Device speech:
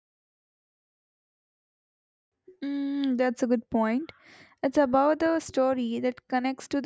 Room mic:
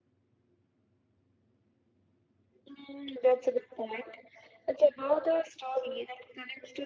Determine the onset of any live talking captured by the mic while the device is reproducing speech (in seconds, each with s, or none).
none